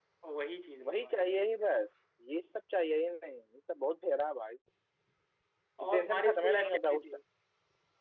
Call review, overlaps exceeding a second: present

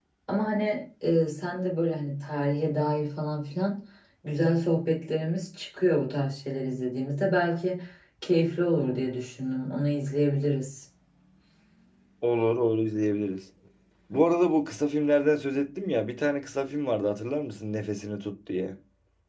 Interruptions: none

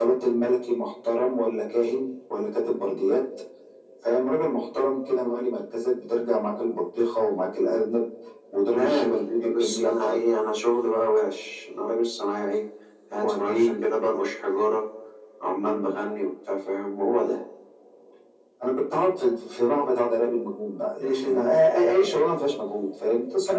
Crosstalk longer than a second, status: present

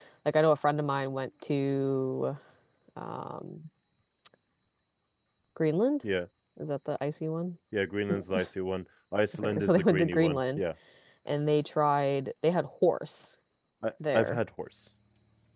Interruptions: present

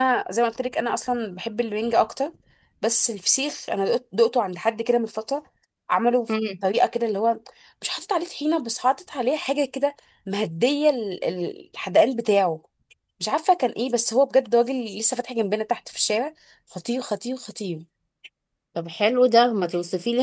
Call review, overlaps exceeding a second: none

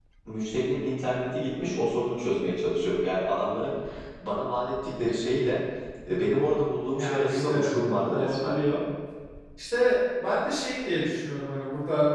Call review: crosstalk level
present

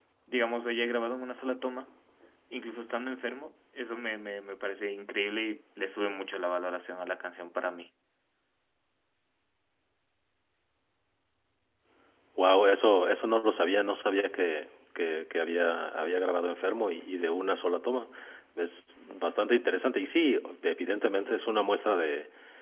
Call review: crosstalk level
none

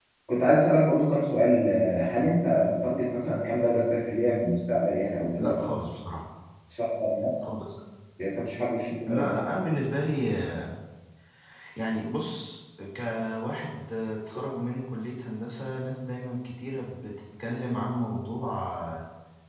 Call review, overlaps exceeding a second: none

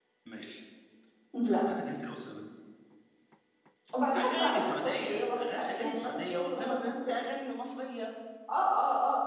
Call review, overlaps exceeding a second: present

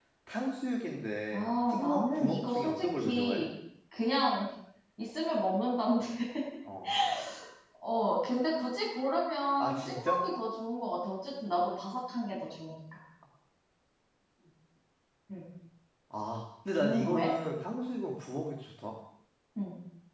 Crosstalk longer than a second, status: present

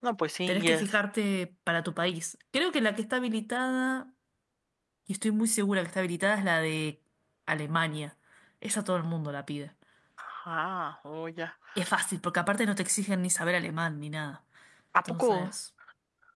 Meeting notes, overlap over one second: none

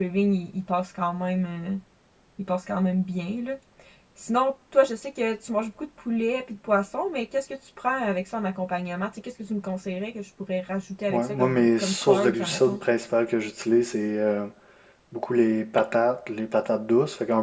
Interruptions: present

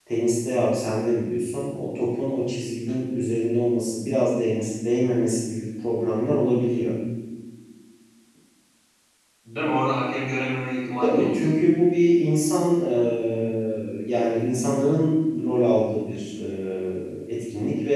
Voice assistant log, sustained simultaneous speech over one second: none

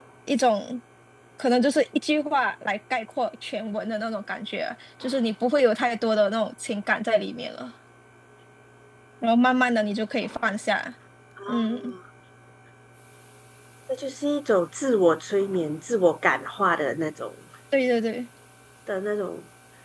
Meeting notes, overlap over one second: none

